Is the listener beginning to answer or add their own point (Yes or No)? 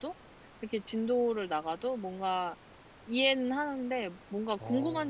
No